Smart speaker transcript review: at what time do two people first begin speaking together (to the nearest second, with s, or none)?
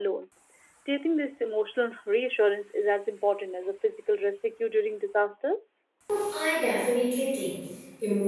none